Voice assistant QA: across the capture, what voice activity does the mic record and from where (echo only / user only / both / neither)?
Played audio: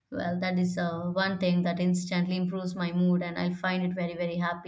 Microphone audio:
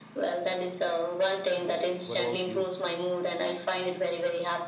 both